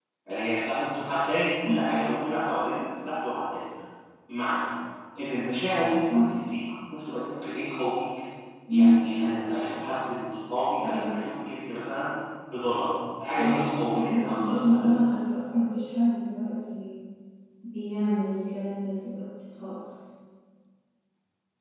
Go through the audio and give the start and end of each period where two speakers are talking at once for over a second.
13.4-14.9

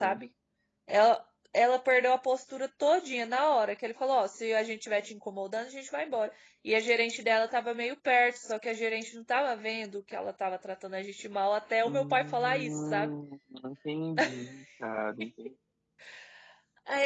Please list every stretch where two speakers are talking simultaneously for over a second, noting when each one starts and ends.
11.8-13.1

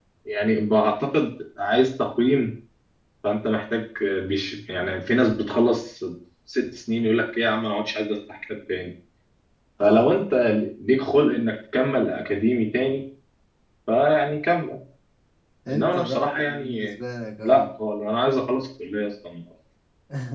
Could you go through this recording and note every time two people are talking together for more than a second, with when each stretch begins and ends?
15.7-16.9

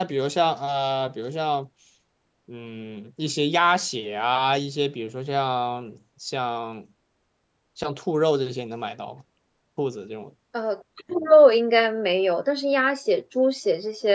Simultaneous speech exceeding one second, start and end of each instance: none

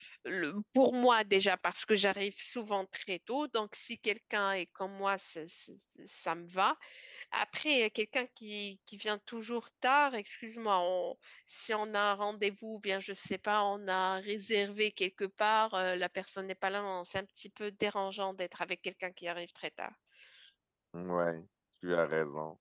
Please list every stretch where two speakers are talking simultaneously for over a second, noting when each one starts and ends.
none

